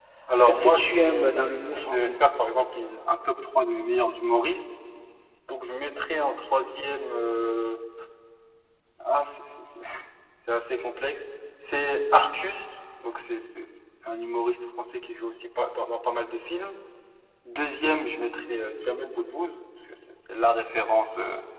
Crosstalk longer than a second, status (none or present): present